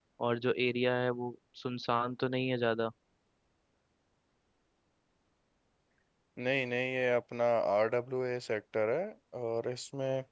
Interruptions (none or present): none